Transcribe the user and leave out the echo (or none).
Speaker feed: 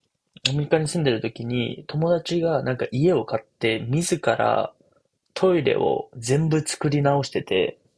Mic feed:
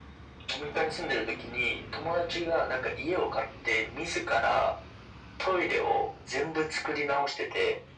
none